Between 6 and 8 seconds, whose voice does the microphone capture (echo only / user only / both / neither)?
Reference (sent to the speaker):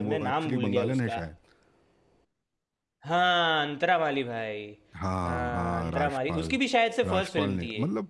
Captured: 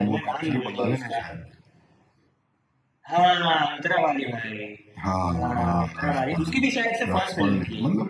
echo only